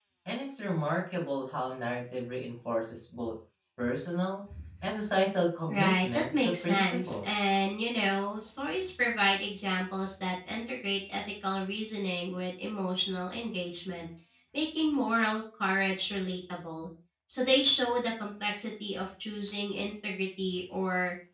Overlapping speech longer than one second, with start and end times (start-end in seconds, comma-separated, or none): 5.7-7.3